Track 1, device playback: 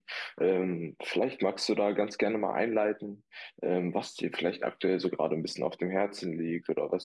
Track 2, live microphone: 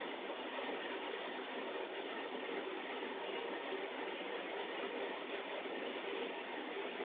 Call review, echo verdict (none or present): none